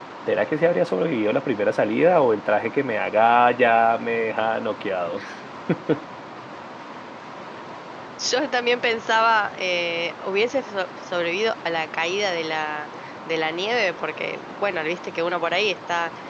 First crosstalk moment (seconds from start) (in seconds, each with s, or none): none